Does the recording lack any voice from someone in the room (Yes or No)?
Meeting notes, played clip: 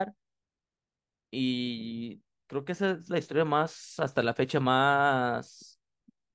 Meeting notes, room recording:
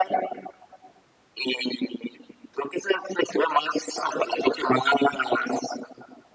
Yes